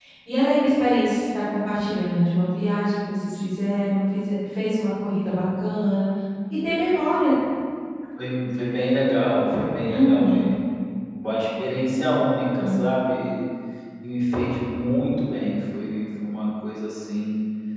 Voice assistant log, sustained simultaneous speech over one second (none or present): none